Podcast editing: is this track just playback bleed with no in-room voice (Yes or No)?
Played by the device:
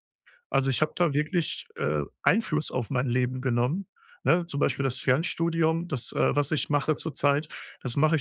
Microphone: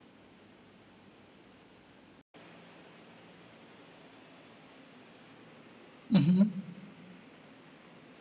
No